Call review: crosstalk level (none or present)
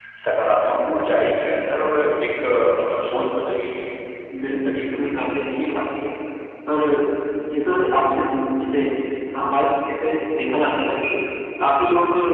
present